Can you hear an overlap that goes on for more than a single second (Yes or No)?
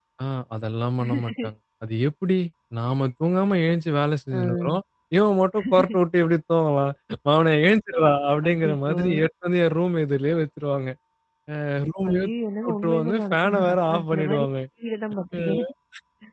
Yes